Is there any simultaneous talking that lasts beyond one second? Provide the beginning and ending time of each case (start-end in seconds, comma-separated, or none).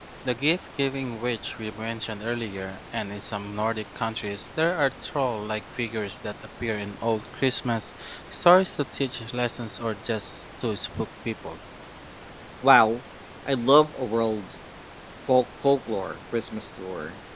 none